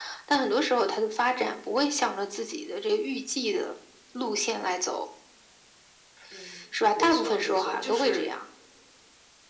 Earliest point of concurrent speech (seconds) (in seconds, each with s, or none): 7.0 s